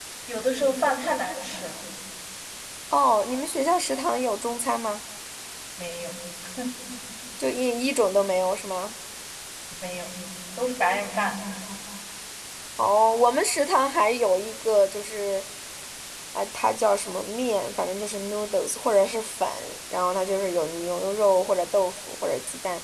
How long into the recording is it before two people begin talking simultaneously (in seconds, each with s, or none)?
none